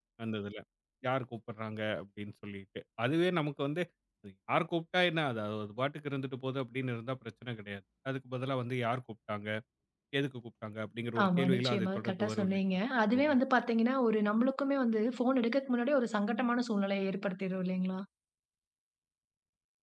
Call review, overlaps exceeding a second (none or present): present